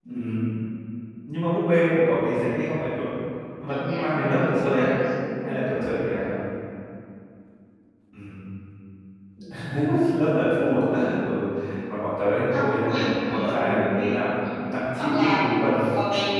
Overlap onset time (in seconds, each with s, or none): 3.7 s